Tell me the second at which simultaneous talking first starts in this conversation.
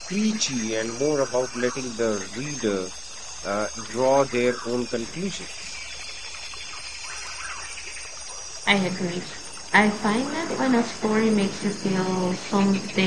none

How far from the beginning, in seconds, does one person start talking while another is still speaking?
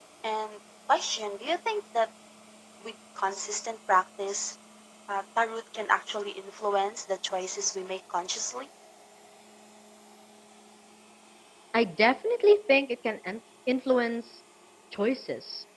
none

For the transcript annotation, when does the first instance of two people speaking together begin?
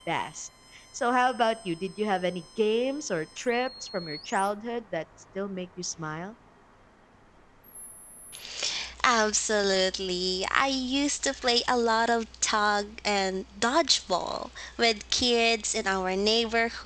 none

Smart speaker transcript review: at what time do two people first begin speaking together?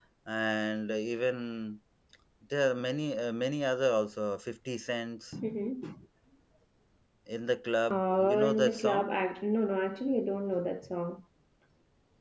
7.9 s

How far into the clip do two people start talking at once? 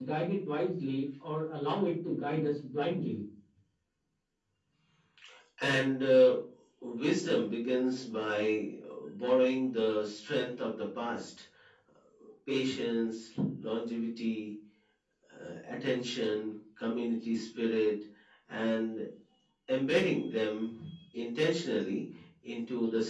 none

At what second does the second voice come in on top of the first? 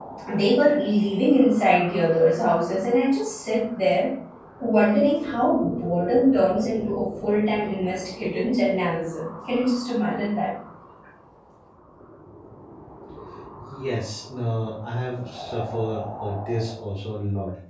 none

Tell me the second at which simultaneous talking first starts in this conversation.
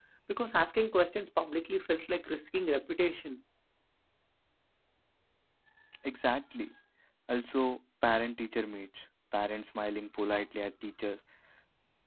none

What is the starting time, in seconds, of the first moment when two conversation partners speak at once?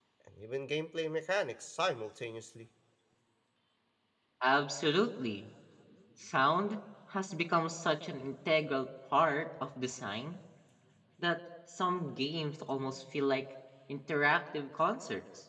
none

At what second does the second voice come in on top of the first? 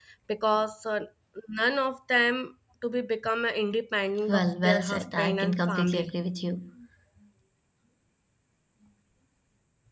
4.3 s

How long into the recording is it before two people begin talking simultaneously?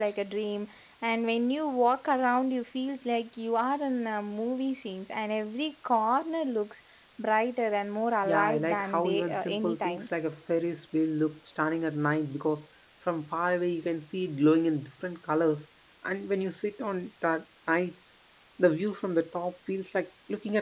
8.2 s

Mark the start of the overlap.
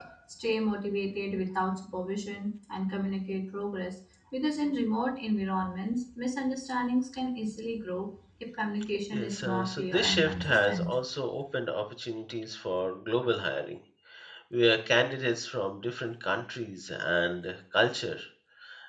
9.1 s

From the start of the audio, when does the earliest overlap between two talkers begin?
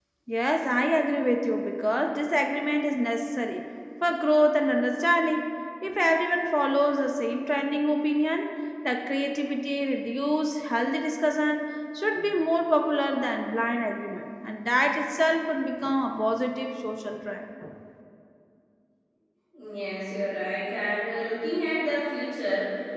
none

